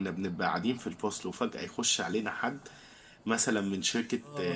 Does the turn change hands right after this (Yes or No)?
No